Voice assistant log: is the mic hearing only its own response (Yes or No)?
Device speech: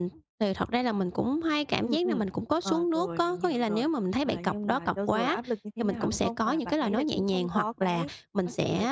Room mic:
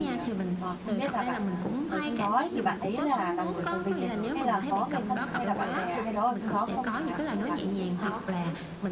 No